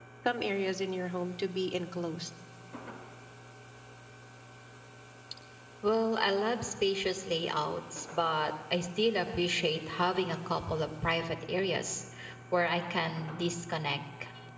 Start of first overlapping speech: none

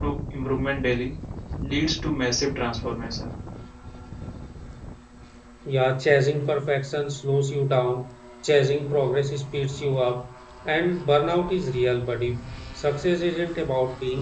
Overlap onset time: none

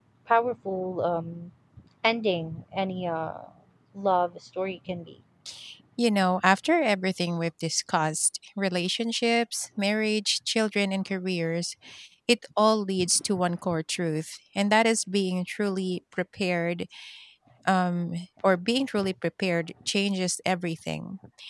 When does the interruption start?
none

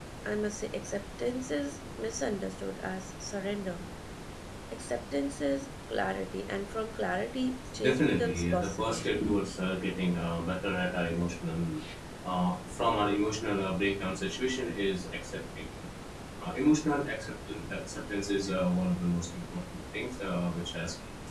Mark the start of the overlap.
7.8 s

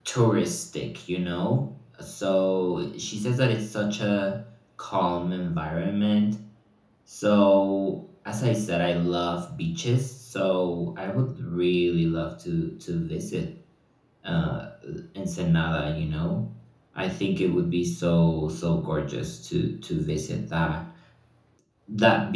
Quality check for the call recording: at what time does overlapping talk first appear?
none

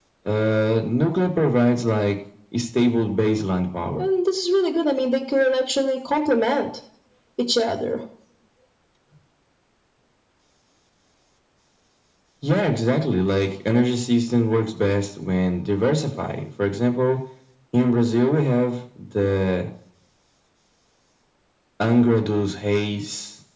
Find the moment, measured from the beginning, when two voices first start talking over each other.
none

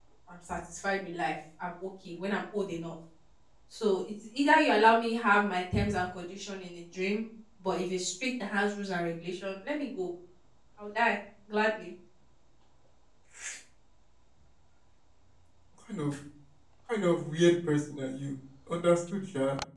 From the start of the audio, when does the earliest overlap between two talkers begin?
none

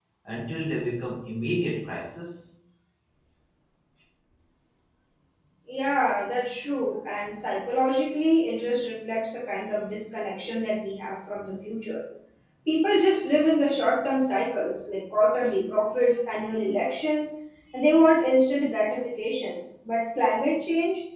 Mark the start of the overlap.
none

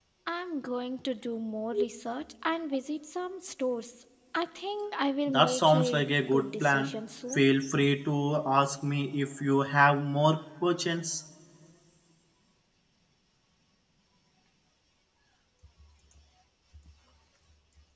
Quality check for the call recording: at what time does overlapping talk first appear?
5.3 s

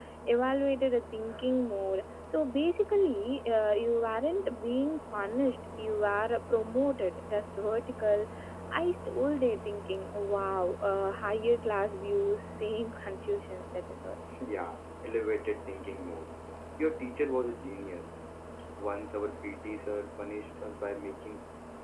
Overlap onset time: none

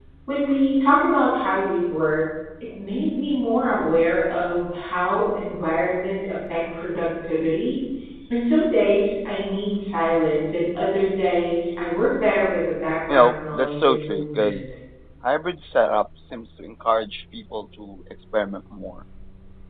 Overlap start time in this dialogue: 13.1 s

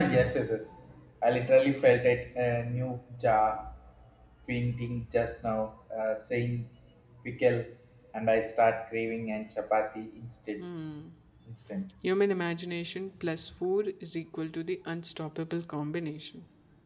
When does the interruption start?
none

